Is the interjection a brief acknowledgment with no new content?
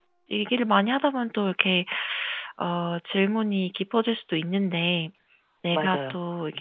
Yes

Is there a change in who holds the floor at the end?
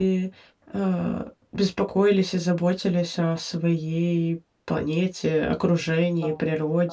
Yes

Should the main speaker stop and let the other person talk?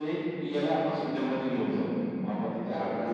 No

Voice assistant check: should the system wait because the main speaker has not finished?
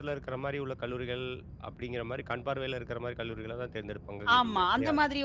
No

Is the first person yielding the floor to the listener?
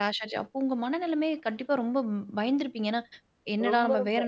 No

